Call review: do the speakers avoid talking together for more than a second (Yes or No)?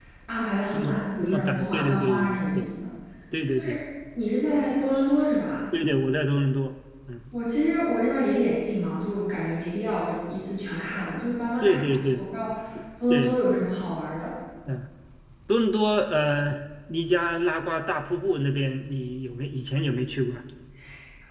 No